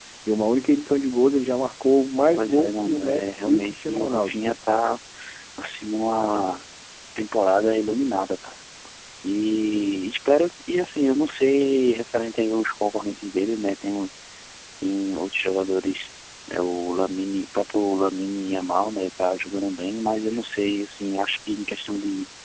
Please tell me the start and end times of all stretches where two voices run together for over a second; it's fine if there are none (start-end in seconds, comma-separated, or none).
2.3-4.4